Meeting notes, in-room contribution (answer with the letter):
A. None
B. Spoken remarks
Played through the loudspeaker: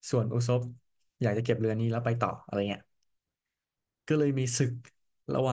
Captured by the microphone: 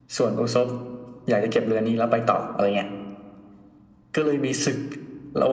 A